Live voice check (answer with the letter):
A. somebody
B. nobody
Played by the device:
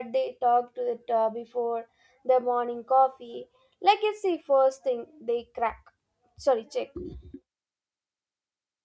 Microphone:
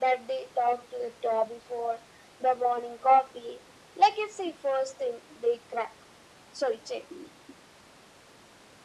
B